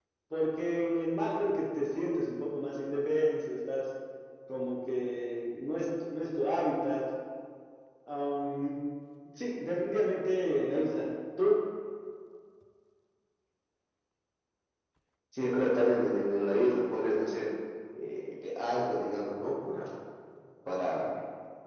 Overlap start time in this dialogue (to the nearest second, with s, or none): none